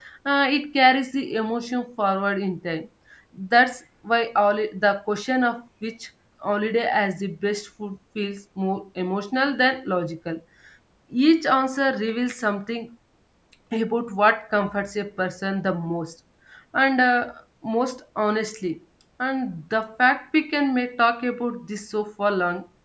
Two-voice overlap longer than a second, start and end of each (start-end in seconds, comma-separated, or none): none